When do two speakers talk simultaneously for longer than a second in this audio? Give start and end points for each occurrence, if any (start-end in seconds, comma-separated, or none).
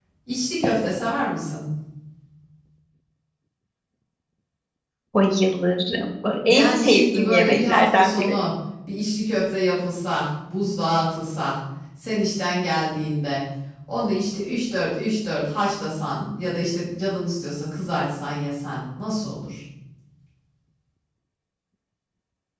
6.5-8.4